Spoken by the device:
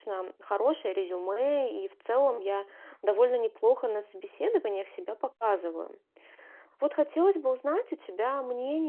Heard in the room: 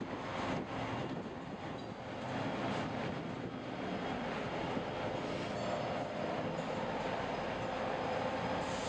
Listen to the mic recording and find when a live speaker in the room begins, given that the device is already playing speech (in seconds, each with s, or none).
none